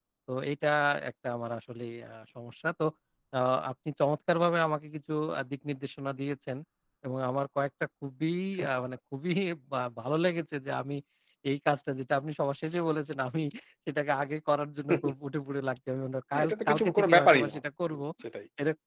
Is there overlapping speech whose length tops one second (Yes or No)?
Yes